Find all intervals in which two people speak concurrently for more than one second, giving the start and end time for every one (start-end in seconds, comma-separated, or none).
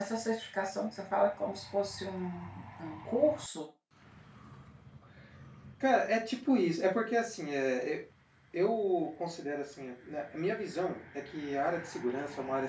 none